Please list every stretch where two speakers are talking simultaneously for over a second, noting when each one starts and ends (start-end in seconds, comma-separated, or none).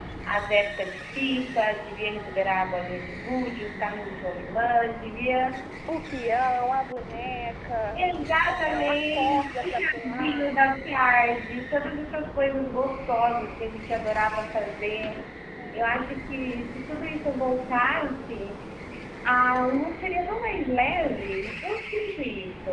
8.4-10.5